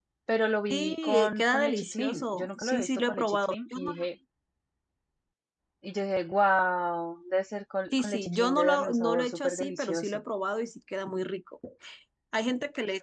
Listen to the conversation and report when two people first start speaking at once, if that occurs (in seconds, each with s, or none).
0.7 s